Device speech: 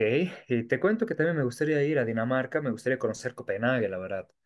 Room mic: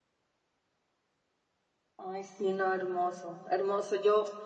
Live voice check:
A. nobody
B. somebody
B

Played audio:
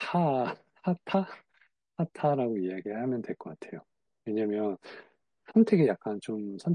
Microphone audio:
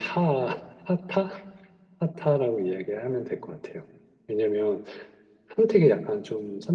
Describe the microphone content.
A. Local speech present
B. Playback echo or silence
B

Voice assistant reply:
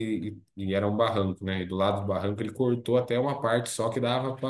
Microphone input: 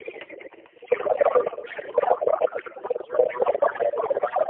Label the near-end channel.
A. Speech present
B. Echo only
B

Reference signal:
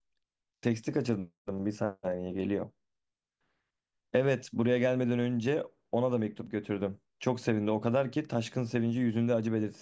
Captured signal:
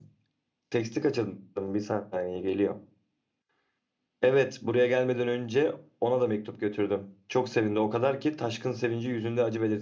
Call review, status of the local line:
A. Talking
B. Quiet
B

